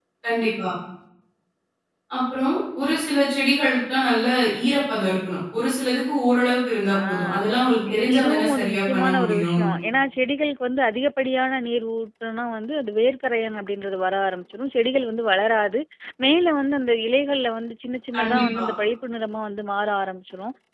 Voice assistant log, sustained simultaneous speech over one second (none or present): present